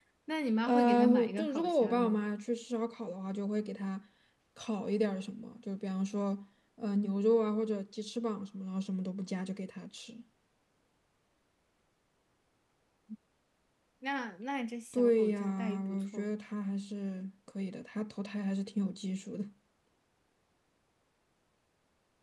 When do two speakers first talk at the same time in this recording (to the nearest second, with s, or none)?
1 s